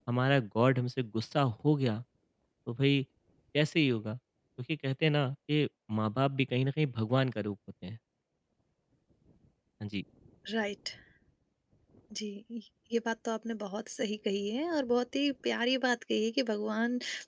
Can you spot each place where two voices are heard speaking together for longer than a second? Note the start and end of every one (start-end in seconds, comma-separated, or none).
none